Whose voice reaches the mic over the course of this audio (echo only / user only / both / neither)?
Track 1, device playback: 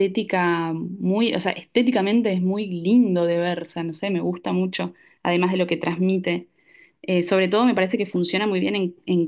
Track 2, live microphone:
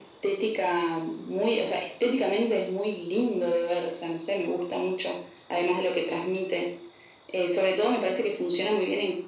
echo only